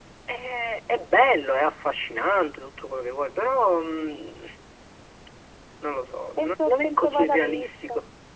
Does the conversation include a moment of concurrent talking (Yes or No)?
Yes